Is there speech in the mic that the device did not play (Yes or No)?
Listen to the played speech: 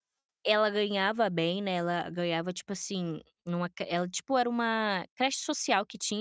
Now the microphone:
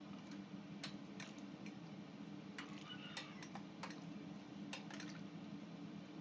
No